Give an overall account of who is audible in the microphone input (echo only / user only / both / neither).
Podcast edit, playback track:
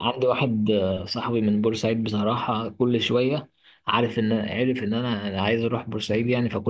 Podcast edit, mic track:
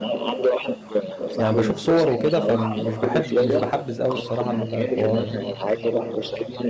both